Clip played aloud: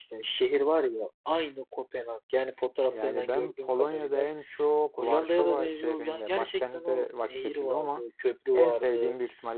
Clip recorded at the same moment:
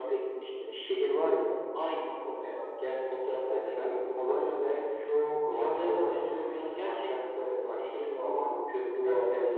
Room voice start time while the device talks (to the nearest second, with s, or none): none